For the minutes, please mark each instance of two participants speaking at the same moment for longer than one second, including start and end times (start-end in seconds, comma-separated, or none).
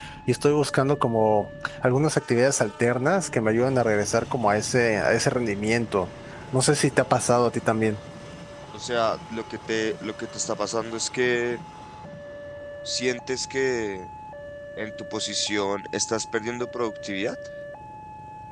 none